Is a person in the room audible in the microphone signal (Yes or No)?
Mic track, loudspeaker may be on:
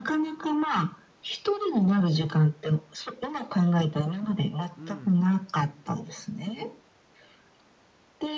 Yes